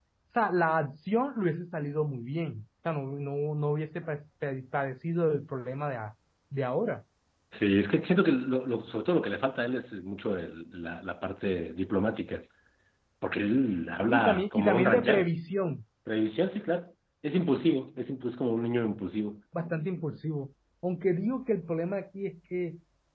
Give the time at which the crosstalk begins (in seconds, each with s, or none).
14.1 s